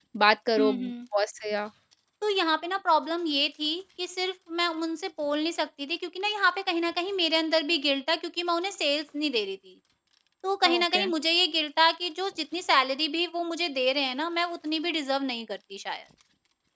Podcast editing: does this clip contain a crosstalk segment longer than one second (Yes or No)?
No